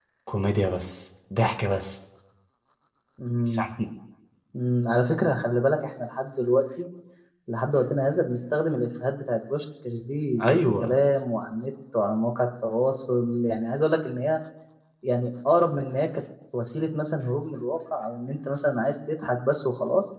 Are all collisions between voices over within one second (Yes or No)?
Yes